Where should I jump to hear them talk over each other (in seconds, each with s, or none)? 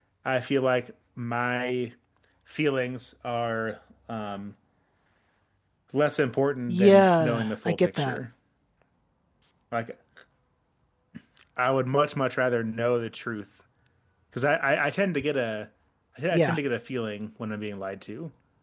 6.7 s